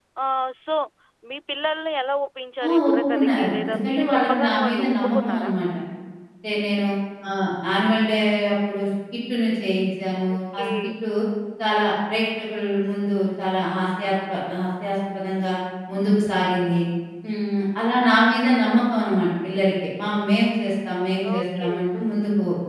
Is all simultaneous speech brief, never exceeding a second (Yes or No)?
No